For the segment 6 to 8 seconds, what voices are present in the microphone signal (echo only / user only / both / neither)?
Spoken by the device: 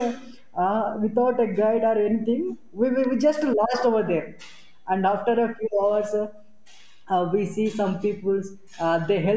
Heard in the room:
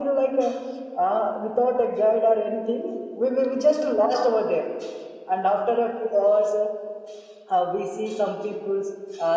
echo only